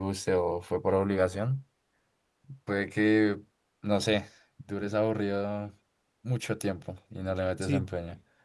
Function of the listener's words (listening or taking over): taking over